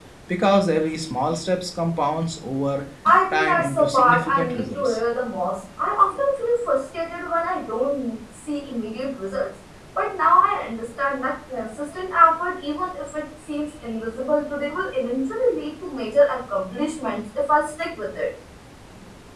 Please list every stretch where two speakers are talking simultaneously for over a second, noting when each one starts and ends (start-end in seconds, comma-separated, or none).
3.3-5.0